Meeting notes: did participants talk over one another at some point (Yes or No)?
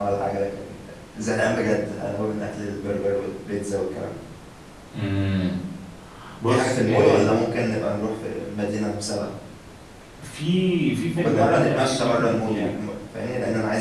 Yes